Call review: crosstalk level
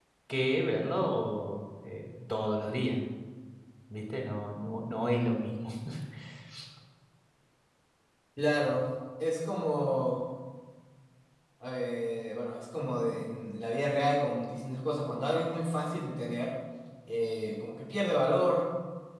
none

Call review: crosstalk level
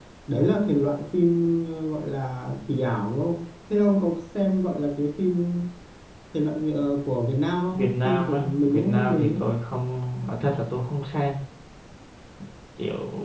present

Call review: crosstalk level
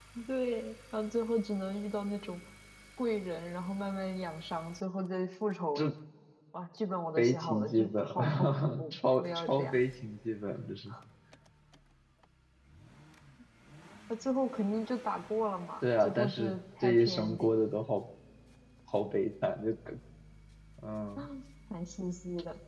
present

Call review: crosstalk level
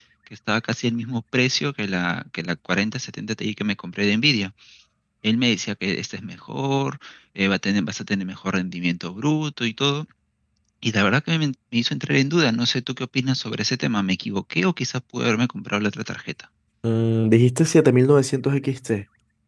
none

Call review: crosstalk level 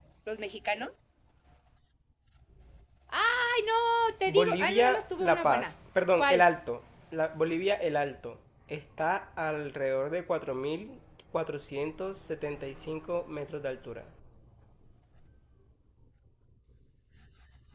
present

